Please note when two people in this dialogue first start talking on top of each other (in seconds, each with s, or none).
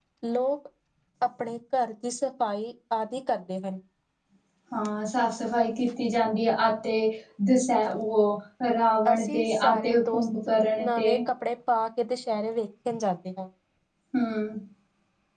9.1 s